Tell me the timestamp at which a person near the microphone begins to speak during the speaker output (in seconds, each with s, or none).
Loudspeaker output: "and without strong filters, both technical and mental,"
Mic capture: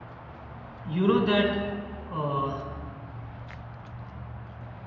0.8 s